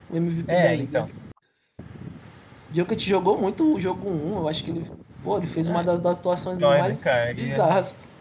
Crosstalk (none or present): present